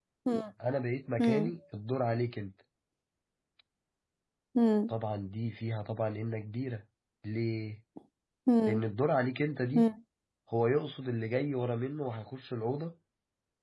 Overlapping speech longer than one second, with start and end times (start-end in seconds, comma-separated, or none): none